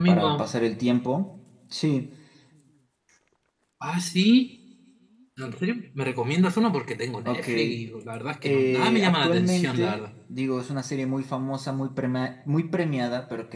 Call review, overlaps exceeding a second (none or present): present